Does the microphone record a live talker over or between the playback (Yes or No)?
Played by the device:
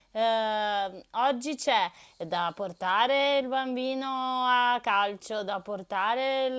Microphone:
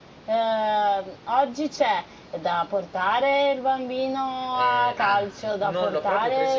Yes